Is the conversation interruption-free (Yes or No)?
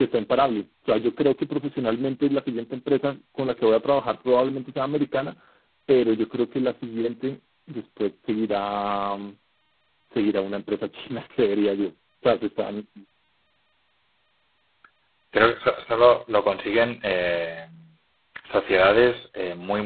Yes